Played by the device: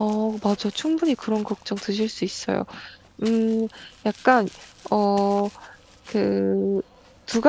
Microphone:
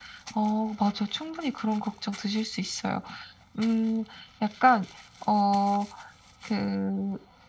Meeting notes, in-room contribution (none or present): none